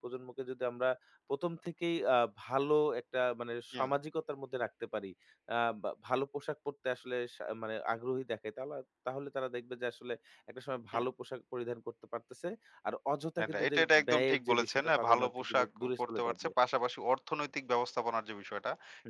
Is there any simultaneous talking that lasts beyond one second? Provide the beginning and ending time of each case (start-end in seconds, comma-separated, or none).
13.4-16.5